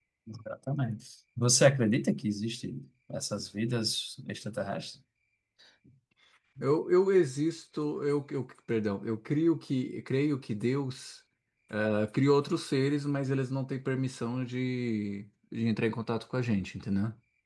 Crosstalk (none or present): none